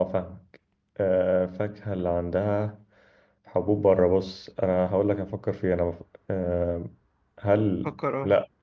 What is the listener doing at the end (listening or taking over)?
listening